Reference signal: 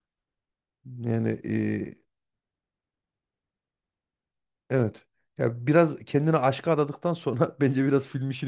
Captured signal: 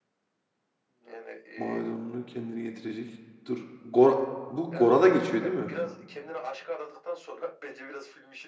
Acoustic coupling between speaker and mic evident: Yes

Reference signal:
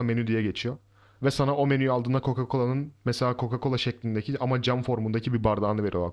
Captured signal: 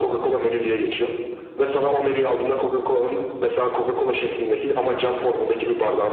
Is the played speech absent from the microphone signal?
No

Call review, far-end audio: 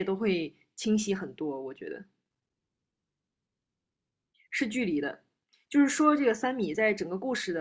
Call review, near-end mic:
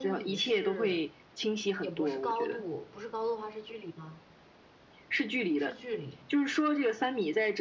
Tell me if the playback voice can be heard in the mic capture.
Yes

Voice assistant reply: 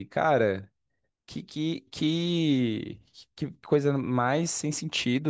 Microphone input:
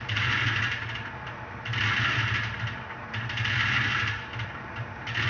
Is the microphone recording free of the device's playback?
Yes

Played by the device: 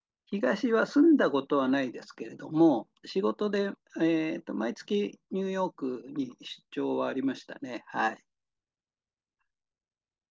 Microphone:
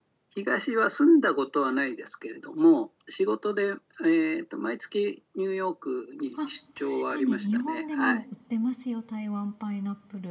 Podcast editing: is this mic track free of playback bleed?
No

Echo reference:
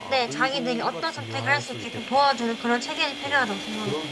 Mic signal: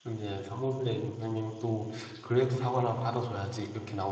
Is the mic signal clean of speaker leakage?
Yes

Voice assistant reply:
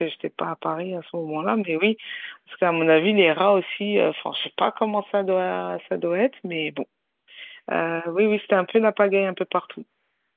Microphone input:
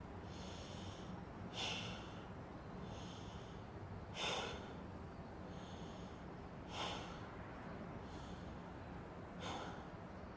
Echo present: No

